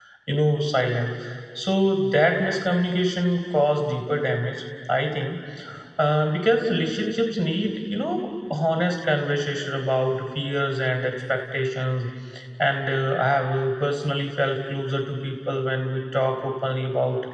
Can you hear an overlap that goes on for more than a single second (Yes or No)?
No